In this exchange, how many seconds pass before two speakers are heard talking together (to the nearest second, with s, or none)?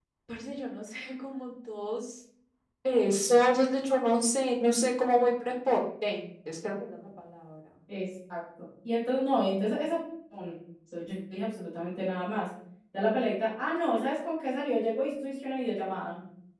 none